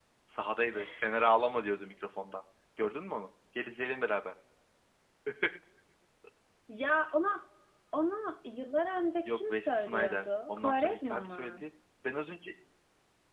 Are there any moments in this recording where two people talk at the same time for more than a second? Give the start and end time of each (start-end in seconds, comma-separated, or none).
9.2-11.6